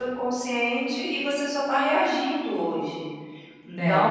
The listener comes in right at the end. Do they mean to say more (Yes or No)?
No